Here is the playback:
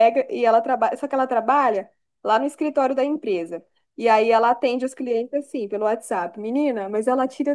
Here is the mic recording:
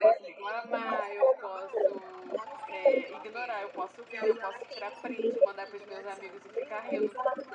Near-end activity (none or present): present